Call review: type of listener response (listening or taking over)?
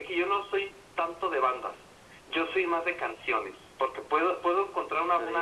listening